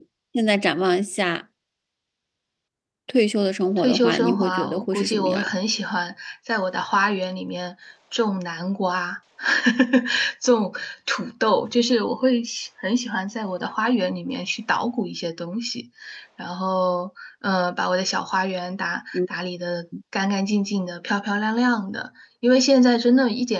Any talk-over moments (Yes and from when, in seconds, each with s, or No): Yes, from 3.8 s